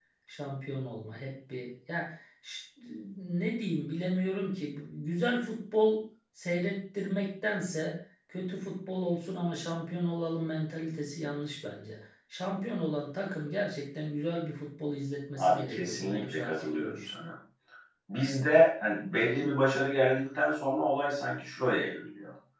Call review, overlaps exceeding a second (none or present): present